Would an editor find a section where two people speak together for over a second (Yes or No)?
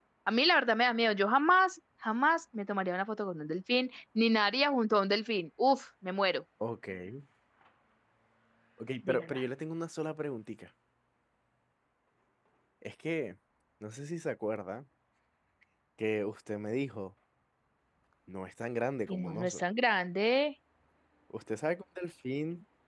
No